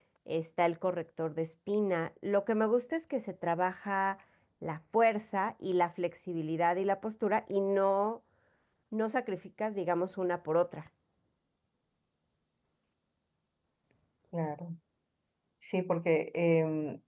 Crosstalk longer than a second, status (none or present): none